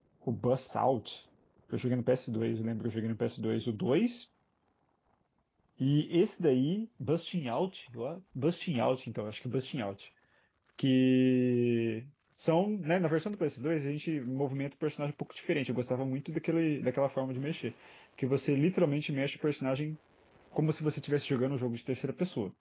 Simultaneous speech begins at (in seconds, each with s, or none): none